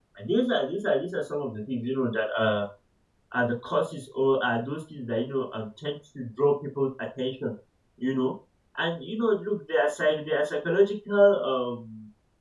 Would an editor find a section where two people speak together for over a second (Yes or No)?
No